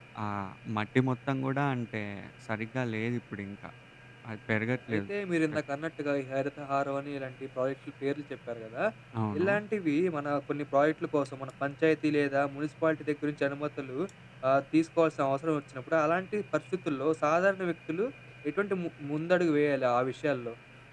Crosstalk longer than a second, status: none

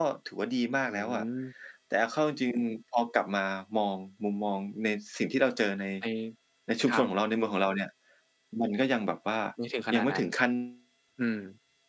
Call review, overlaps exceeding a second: none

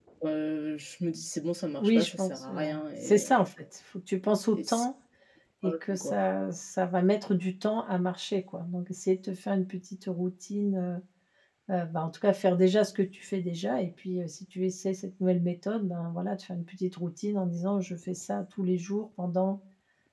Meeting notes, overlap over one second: present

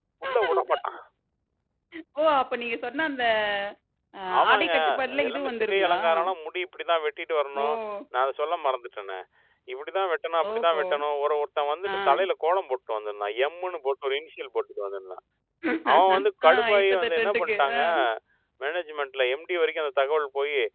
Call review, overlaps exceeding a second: present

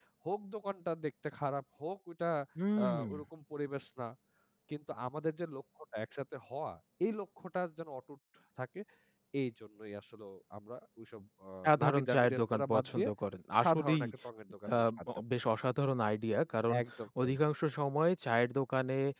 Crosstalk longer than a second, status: present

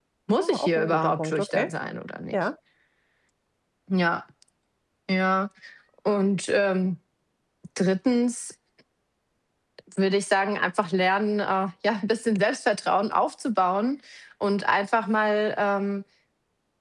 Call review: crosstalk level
present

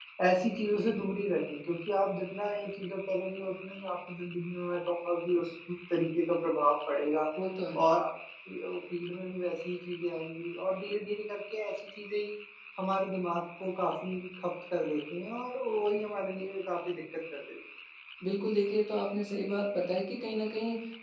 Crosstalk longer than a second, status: none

